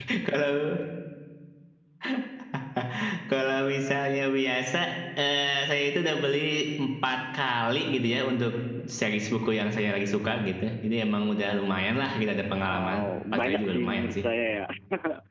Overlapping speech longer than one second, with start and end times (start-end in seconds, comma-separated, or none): 12.7-14.2